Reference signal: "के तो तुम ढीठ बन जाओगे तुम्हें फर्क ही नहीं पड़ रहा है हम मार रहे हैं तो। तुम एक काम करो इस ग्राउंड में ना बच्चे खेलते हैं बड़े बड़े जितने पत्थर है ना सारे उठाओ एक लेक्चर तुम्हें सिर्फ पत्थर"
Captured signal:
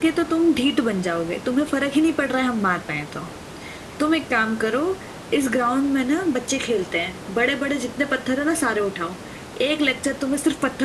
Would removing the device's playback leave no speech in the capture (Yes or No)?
Yes